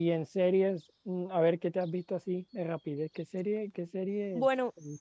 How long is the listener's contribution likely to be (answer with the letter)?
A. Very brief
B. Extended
B